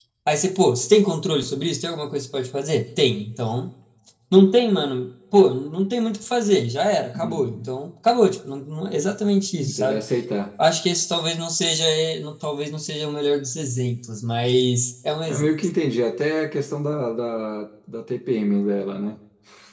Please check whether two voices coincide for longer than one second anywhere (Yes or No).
No